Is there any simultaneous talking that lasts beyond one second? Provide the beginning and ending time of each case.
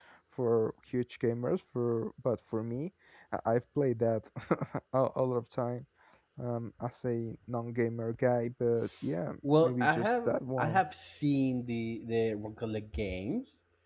9.4-10.8

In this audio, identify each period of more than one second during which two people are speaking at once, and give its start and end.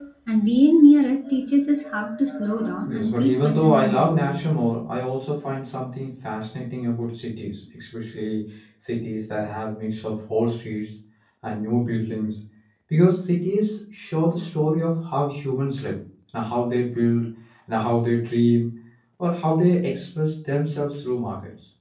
2.9-4.4

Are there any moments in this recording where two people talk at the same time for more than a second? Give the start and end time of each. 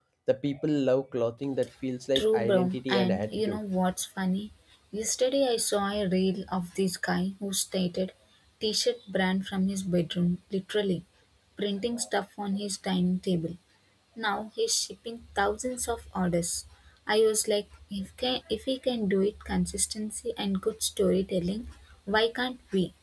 2.1-3.6

